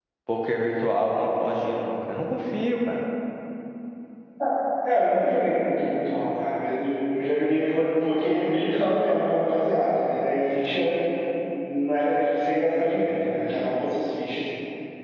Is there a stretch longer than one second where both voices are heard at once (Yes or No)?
No